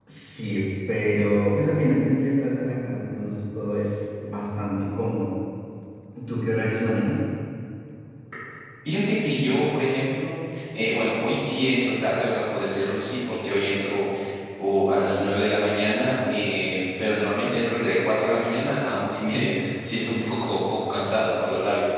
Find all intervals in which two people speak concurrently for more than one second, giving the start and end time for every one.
none

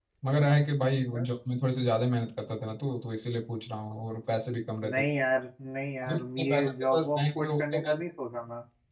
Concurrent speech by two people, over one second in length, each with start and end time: 6.0-8.0

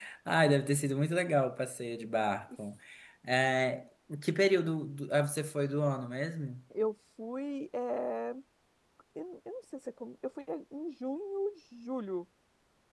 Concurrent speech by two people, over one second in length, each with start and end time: none

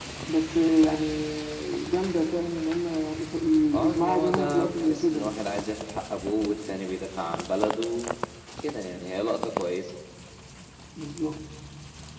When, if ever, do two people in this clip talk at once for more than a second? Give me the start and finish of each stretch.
3.8-5.4

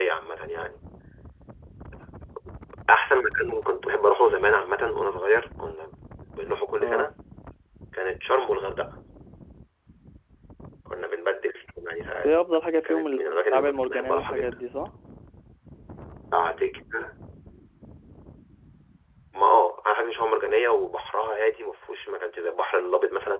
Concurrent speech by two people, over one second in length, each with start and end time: 12.8-14.5

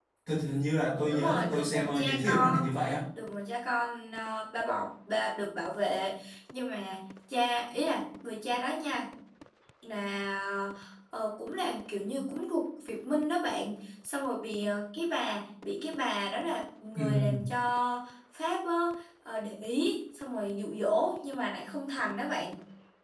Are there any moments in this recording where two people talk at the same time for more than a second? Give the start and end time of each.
1.1-2.7

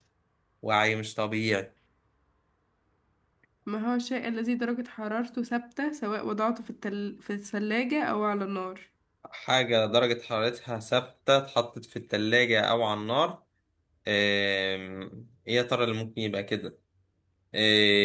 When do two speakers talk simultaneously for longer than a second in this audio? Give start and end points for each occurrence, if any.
none

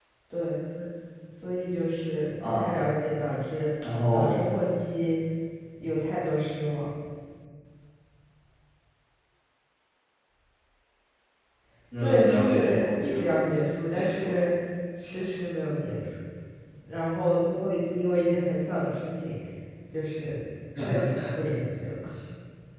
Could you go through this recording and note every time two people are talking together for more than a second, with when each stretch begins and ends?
12.0-13.5

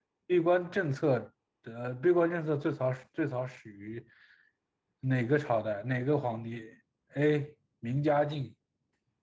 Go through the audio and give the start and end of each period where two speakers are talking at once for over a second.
none

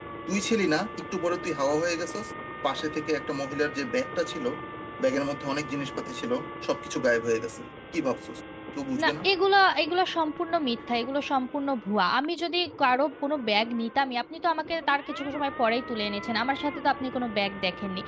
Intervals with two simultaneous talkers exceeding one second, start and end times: none

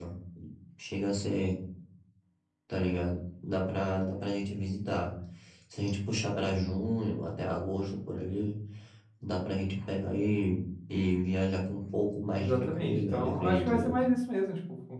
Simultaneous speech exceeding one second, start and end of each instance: 12.3-13.9

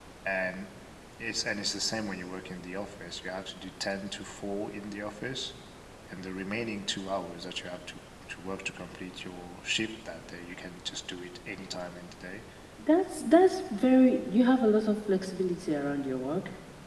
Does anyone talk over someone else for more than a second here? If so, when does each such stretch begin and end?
none

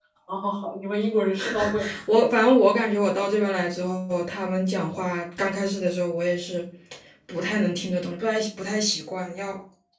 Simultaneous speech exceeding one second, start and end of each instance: none

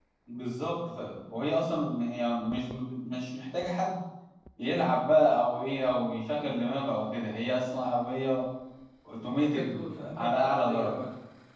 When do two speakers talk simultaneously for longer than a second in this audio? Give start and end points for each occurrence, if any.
9.4-11.0

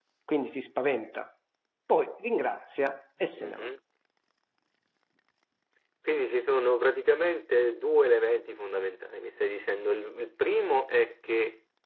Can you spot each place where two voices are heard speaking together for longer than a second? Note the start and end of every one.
none

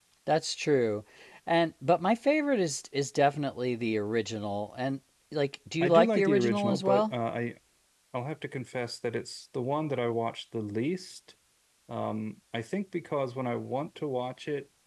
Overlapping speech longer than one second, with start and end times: 5.8-7.1

